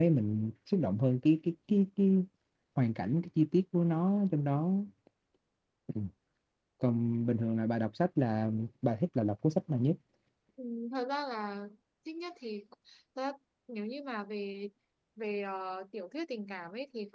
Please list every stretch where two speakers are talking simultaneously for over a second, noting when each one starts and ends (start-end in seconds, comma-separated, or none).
none